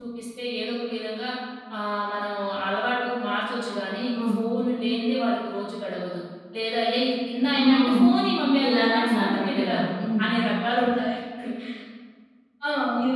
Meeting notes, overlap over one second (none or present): present